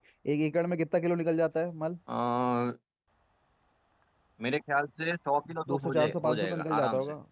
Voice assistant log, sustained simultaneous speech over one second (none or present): present